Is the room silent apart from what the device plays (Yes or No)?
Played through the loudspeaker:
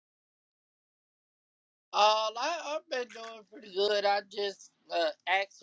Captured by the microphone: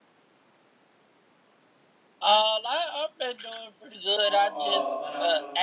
No